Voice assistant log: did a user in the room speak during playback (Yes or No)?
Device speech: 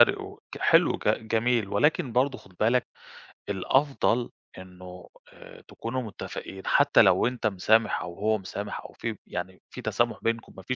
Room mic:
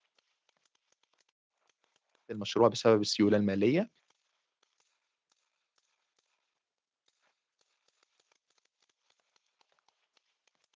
Yes